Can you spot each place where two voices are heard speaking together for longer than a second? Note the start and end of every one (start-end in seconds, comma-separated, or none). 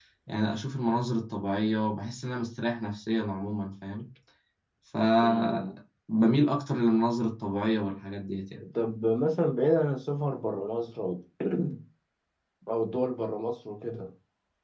none